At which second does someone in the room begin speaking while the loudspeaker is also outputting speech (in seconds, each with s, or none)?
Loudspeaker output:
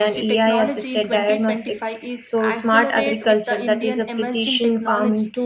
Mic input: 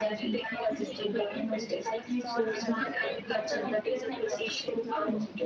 2.0 s